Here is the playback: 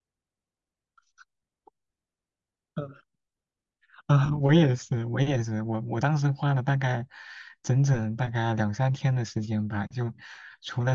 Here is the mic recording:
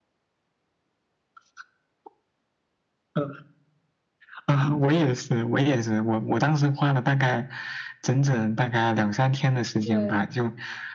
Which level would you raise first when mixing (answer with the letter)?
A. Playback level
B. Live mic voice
B